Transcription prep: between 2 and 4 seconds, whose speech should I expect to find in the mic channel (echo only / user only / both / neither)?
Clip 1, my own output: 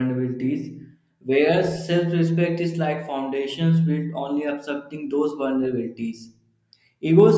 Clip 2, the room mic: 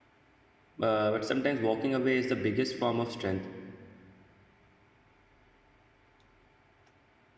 user only